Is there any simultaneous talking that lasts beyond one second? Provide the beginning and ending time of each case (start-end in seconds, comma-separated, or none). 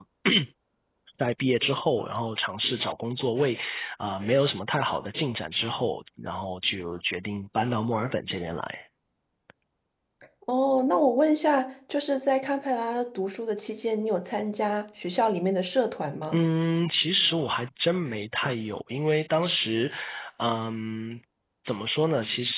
none